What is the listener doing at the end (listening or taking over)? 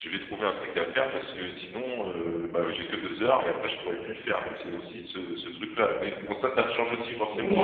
taking over